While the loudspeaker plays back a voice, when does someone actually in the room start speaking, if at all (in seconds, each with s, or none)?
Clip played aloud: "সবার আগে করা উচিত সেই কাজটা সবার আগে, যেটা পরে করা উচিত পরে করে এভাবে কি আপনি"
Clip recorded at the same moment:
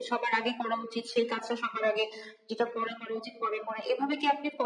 none